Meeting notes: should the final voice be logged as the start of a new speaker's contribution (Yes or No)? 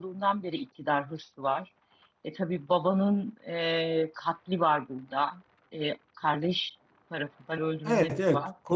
Yes